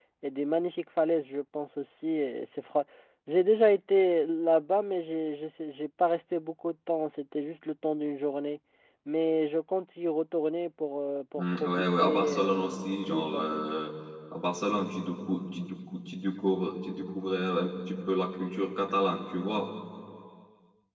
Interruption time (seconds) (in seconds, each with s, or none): 11.4 s